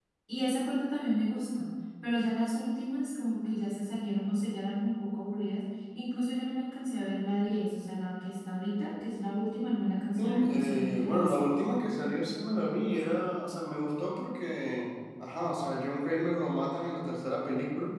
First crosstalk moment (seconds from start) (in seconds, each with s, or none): 10.2 s